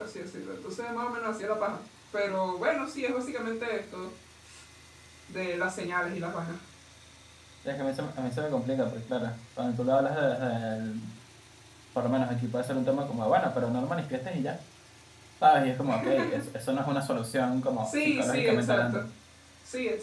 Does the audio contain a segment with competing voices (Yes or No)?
Yes